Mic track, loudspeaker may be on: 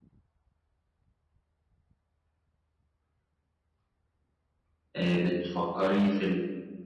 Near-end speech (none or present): present